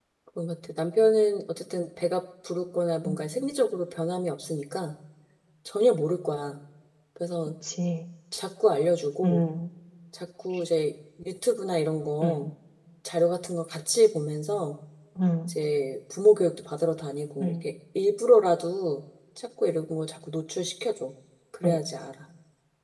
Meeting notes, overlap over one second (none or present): none